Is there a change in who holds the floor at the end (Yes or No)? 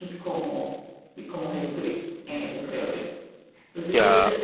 No